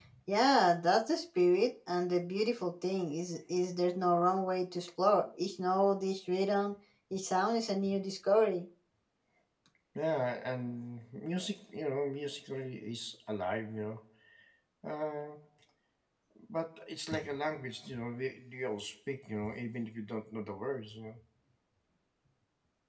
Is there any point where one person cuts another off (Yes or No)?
No